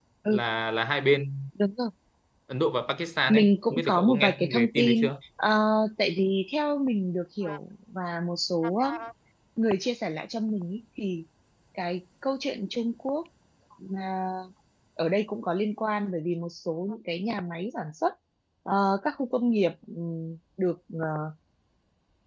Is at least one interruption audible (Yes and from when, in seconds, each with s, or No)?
Yes, from 3.3 s